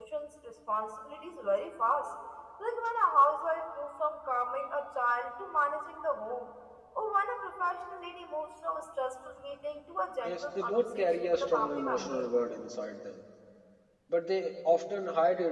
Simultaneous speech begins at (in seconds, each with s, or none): 10.2 s